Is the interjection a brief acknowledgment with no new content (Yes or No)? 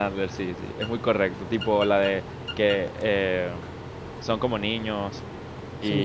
Yes